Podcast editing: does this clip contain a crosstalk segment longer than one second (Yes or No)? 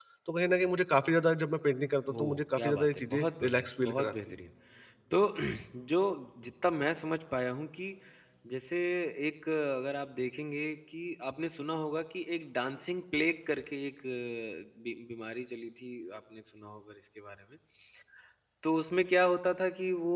Yes